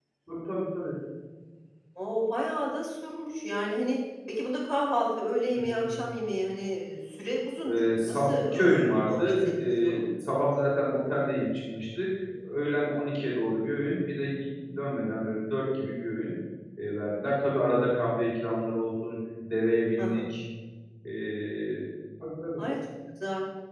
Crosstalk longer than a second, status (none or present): present